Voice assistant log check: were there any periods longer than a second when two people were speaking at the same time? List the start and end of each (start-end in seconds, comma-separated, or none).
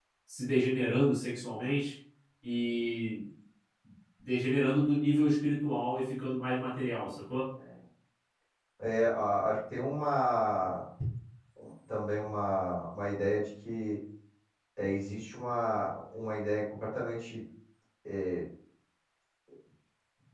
none